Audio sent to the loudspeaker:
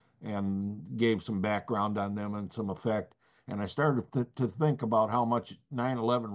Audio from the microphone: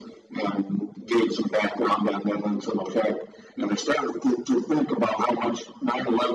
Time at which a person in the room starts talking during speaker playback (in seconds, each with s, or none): none